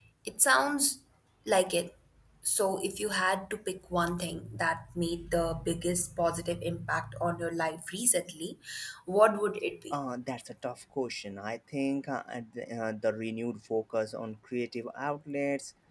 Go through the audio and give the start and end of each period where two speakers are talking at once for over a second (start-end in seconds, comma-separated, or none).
none